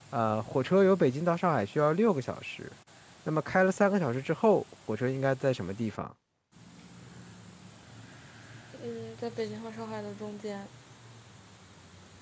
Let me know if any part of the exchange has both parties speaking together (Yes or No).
No